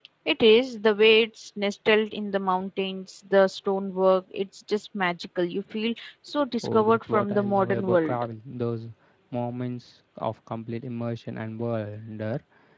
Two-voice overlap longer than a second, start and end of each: 6.6-8.2

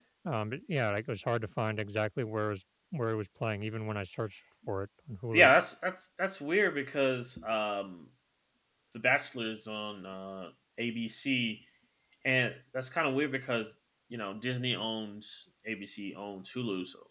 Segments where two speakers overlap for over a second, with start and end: none

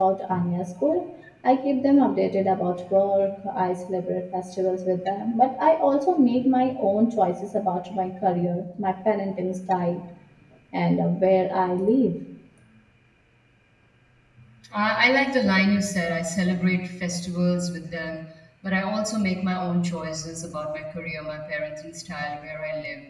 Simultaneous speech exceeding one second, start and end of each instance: none

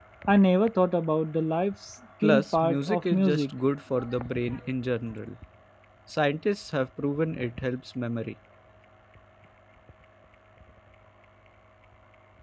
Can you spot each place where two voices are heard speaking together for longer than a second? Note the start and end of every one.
2.2-3.5

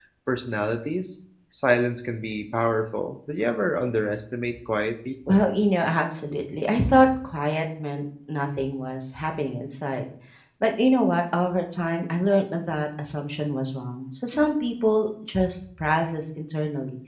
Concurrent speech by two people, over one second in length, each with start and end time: none

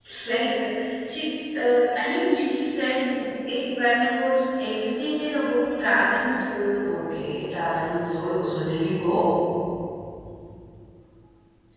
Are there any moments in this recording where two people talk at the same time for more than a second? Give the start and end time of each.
none

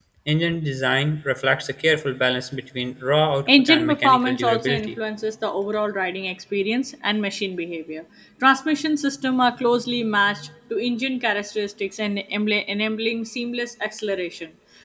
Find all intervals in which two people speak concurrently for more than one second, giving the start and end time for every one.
3.6-5.0

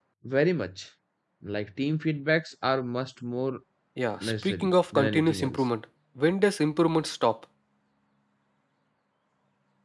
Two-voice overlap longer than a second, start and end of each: 4.2-5.6

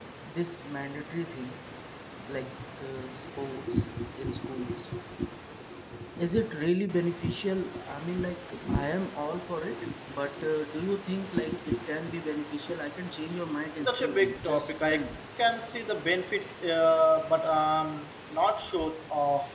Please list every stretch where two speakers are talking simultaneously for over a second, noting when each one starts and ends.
13.8-15.2

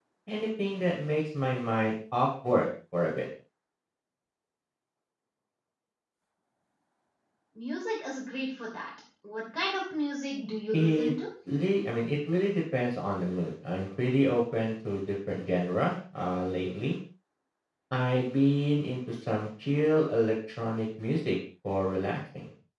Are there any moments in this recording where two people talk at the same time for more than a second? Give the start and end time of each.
none

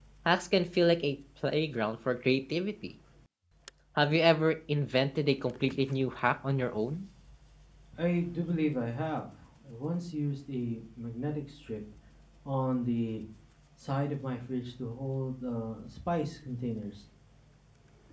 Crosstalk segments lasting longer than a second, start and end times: none

